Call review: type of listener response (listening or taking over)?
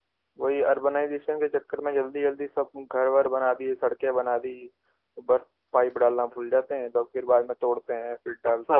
taking over